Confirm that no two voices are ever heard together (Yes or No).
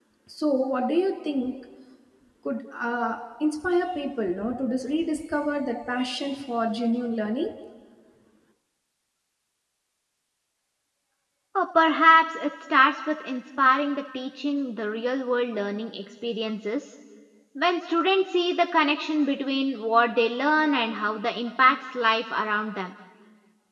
Yes